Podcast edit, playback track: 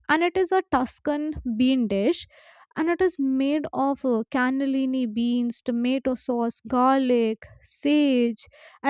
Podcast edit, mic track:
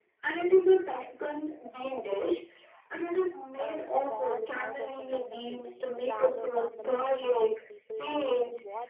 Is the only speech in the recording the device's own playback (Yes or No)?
No